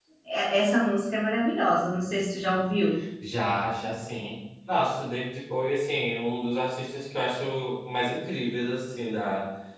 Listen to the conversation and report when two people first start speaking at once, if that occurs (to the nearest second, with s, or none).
none